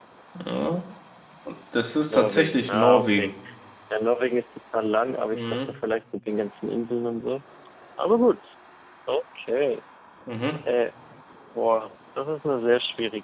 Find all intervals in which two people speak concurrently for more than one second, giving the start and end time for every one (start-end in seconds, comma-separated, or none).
2.1-3.3